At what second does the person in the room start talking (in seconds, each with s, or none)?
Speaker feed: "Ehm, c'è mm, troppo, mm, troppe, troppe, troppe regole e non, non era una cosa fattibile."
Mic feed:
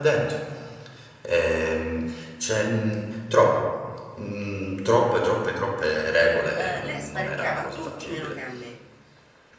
6.5 s